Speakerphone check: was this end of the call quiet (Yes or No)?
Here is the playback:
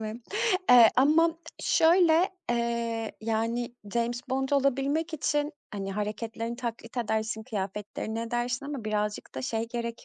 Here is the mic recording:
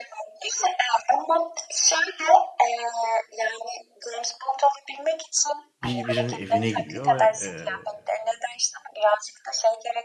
No